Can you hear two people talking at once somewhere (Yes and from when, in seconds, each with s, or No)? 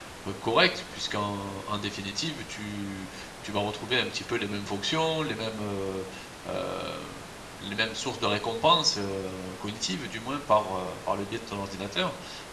No